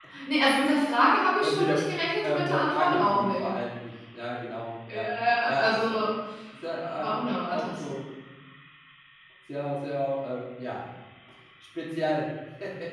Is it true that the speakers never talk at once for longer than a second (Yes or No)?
No